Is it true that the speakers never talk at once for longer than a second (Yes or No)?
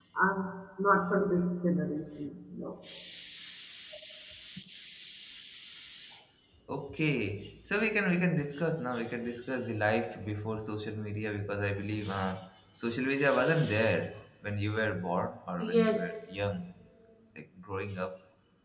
Yes